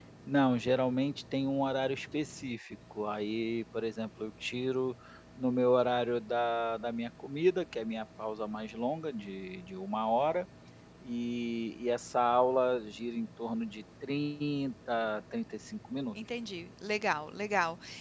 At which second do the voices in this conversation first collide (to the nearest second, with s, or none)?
none